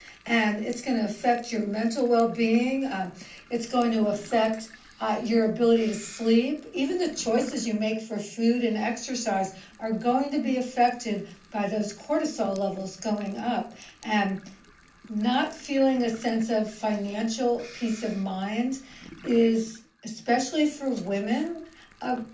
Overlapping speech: No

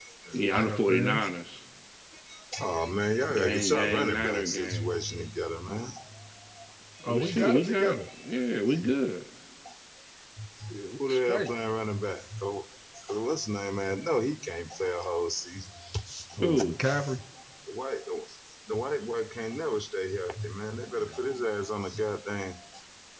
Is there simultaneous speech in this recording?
Yes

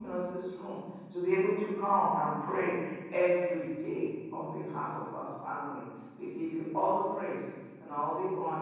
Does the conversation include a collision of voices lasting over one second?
No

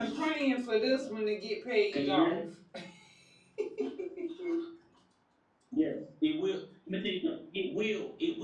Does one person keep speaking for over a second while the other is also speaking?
No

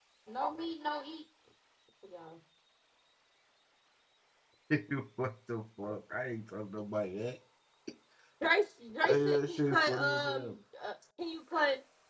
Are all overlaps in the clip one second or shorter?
No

